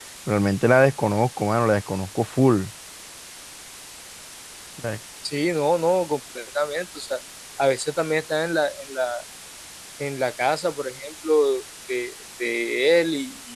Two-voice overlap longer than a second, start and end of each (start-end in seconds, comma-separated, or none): none